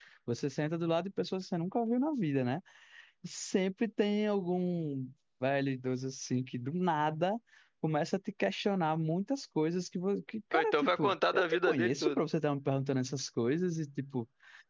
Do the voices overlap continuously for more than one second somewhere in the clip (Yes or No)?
Yes